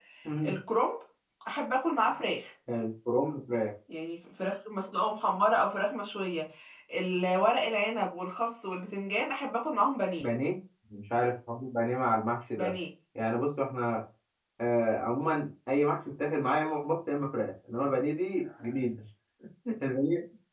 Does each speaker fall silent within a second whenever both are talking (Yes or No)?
Yes